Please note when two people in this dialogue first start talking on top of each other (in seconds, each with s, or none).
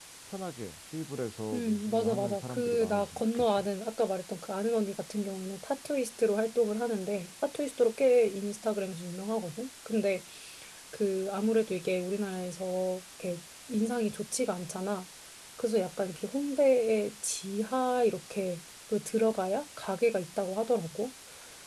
1.5 s